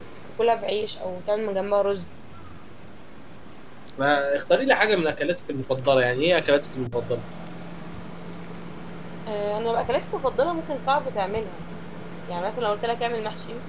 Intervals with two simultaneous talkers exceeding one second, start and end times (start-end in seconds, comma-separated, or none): none